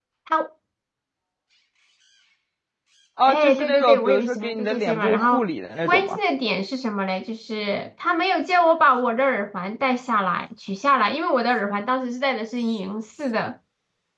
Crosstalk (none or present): present